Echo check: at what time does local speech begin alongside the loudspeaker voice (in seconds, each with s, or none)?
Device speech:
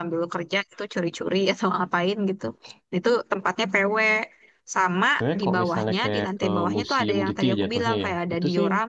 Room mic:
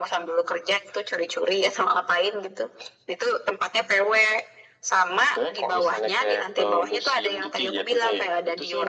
none